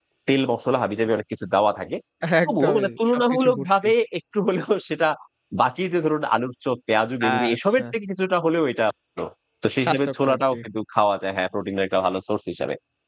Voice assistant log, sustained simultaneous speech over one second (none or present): present